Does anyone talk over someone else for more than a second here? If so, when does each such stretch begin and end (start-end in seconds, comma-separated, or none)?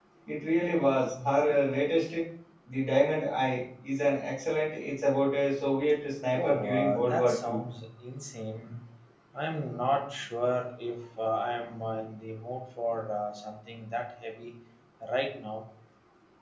6.3-7.6